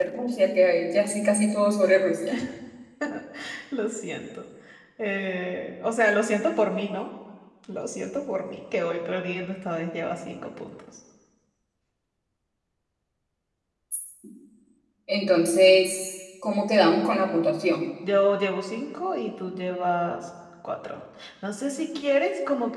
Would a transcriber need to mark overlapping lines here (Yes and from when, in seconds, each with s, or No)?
No